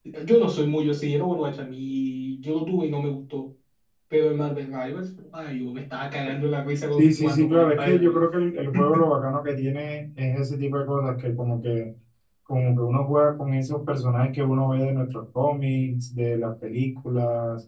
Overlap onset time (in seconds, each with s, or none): 7.0 s